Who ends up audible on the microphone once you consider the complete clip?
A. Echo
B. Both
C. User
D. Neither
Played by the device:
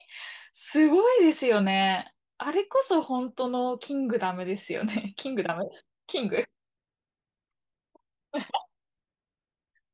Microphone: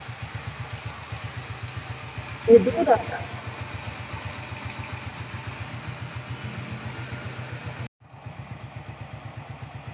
C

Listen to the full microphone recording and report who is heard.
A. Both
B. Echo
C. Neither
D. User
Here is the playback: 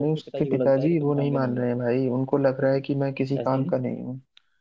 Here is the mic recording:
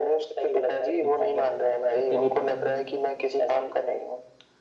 A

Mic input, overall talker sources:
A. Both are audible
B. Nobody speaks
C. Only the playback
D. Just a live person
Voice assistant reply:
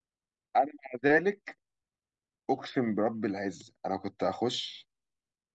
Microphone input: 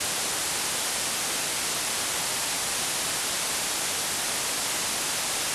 B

